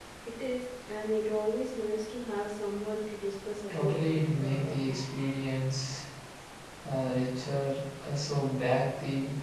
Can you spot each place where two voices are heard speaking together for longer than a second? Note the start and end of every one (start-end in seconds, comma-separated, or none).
3.7-5.0